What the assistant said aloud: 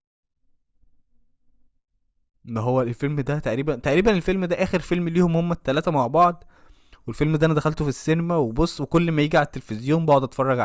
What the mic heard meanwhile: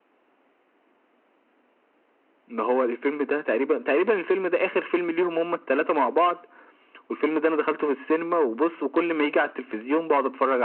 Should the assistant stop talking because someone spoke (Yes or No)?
No